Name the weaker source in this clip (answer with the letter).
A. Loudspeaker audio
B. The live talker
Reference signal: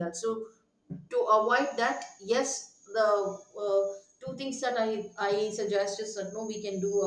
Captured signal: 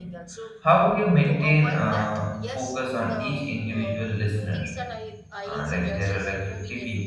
A